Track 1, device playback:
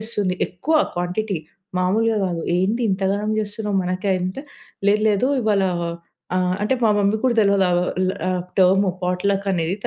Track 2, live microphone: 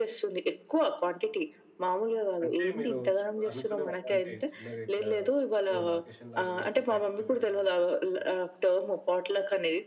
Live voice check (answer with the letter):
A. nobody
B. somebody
B